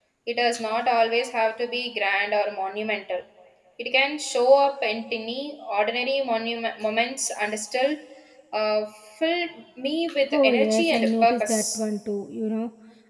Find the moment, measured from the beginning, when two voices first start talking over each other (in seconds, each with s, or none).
10.3 s